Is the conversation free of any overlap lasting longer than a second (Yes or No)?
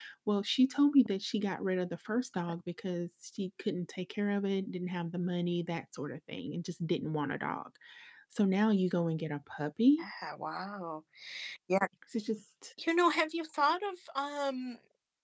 Yes